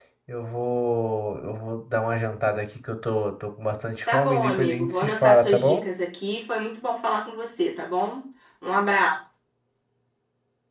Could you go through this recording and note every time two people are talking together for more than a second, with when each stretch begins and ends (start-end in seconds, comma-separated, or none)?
4.1-5.8